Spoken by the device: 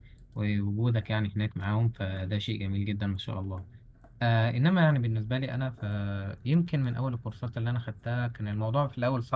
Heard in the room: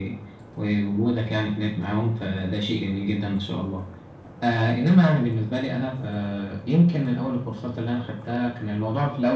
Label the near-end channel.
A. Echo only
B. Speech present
A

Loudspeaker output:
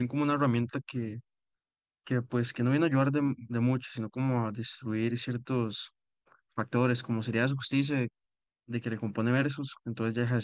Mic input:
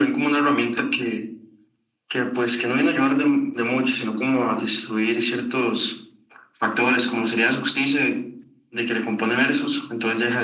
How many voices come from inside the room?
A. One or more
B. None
B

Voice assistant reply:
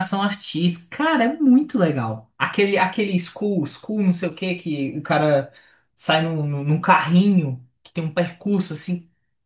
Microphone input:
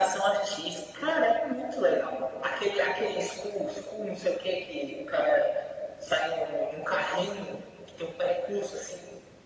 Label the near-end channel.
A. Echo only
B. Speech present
A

